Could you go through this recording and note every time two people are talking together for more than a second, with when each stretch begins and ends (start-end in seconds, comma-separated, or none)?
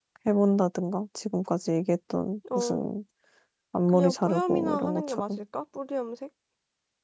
3.9-5.4